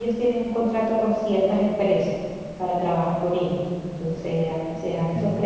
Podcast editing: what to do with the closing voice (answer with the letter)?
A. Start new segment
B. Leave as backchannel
B